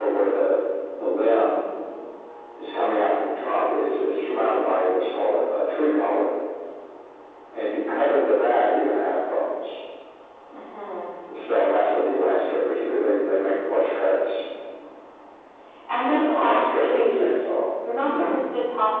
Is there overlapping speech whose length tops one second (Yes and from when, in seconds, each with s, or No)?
Yes, from 16.0 s